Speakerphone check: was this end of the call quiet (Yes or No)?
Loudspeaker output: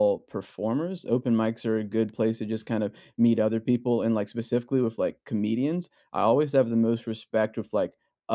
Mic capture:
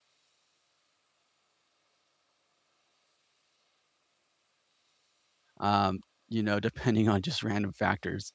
No